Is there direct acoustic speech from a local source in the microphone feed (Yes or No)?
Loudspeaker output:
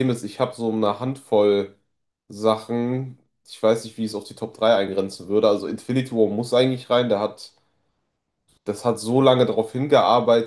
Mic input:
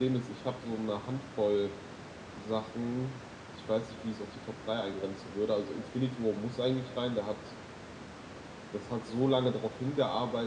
No